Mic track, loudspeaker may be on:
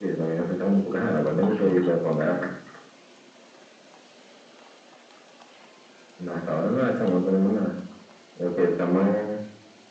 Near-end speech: present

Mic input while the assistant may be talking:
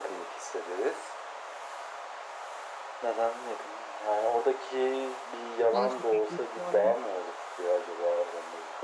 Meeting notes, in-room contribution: present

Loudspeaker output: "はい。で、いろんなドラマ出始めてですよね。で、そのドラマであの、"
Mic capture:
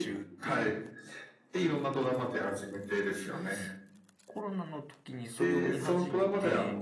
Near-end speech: present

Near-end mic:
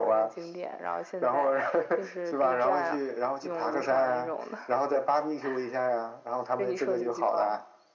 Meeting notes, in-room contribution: none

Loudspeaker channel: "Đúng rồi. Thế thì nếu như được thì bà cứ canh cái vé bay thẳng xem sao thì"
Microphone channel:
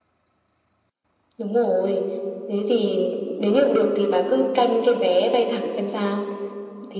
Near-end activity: none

